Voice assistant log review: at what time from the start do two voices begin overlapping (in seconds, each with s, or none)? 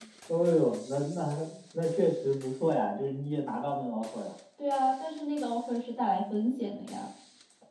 none